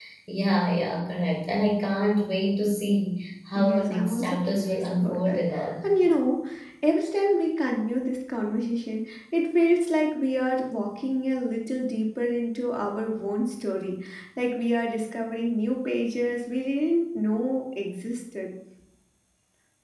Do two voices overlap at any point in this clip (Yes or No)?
Yes